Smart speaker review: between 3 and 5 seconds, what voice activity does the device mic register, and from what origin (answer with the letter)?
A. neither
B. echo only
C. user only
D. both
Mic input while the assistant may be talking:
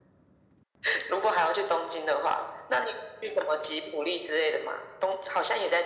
B